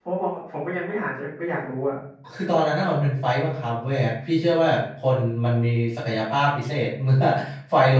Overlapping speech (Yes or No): No